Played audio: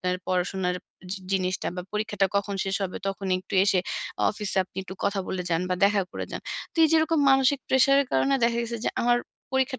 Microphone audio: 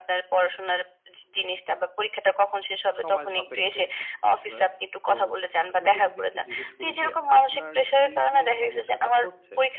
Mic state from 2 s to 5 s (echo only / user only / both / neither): both